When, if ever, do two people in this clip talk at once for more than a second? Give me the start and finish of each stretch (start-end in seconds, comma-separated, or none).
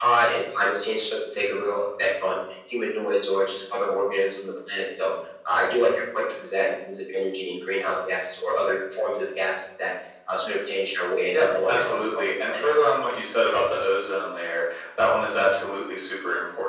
11.3-12.7